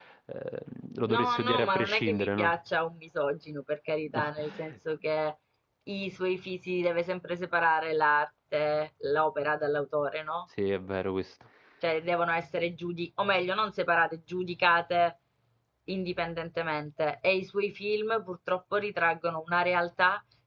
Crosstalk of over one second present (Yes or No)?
Yes